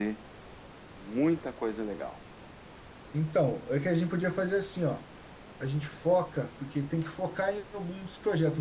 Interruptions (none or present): none